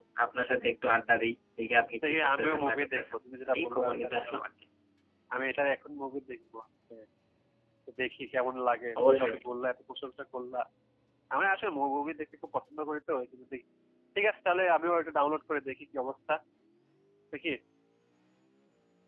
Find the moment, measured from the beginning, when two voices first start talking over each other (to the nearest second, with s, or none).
2 s